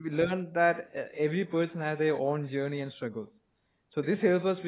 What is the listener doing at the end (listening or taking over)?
listening